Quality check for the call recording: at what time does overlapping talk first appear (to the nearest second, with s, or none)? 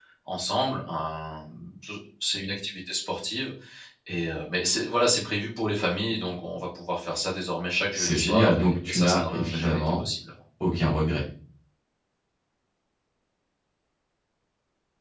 8 s